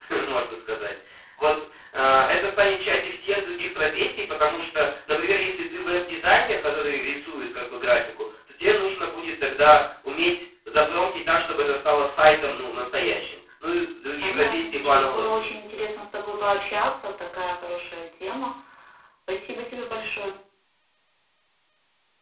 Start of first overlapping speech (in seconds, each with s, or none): 14.2 s